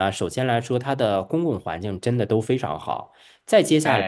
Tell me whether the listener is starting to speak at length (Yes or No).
No